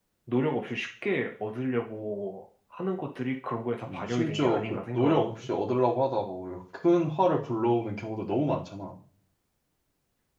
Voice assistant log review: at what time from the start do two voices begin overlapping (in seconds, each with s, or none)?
3.9 s